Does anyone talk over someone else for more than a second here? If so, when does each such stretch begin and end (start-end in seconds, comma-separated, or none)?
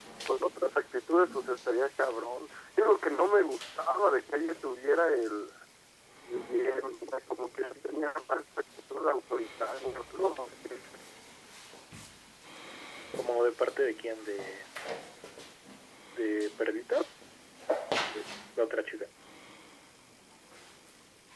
none